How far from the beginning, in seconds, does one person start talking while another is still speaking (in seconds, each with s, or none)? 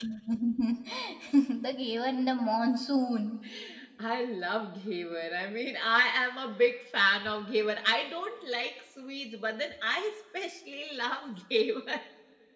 none